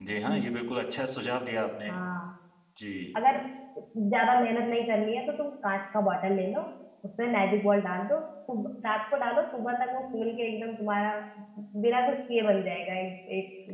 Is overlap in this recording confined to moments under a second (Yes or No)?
Yes